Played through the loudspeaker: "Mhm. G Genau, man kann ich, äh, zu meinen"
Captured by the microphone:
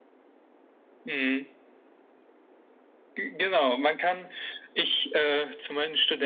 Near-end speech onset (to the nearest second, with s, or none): none